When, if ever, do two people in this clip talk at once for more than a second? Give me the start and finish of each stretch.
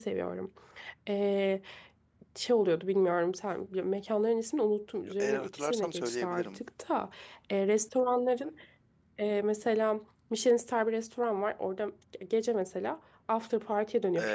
5.2-6.6

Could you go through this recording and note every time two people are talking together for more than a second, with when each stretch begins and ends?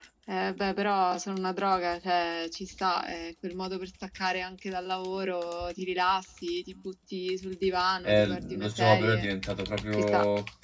8.0-9.3

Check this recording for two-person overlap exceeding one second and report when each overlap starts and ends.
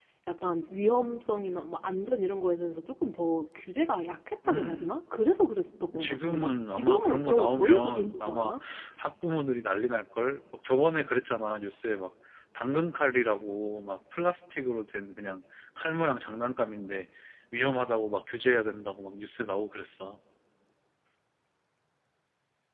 6.0-8.5

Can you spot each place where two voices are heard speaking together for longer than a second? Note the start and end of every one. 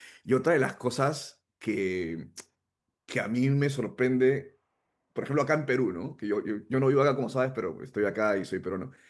none

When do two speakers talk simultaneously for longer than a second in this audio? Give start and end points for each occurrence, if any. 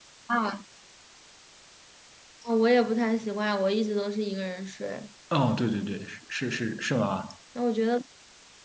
none

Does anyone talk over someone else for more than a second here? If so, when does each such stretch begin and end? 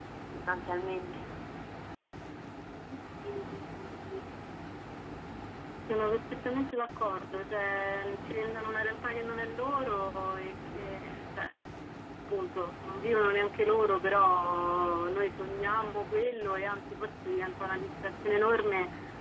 none

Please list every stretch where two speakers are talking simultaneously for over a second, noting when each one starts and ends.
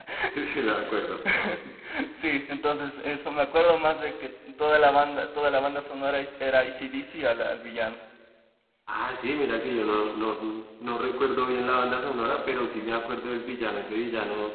none

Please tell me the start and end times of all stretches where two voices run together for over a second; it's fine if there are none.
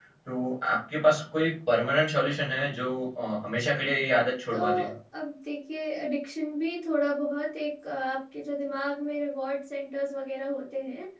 none

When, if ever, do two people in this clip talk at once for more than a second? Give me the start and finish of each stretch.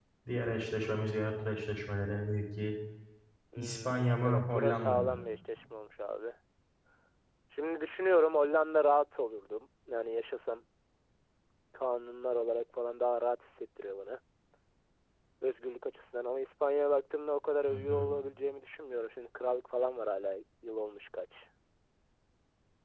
3.6-5.2

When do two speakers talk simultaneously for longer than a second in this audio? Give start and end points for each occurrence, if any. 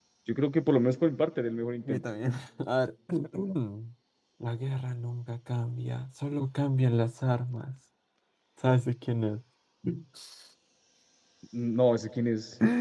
none

